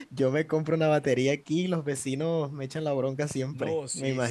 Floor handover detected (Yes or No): Yes